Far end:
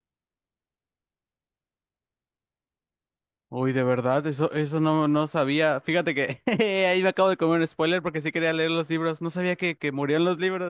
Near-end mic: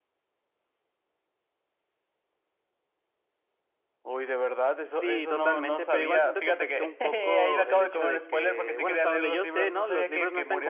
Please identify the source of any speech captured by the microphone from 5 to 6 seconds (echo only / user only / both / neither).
both